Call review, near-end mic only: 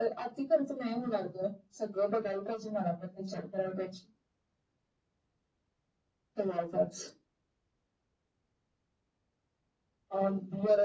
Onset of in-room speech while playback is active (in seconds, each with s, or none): none